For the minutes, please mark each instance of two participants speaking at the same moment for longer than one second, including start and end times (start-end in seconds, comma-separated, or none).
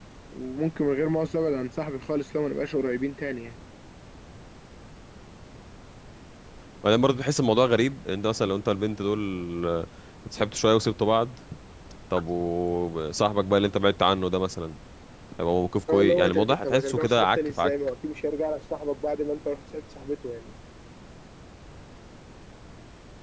15.9-17.7